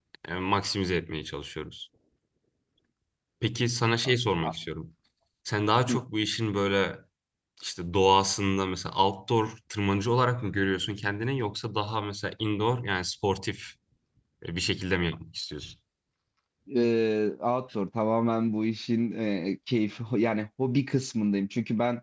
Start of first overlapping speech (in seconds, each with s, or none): none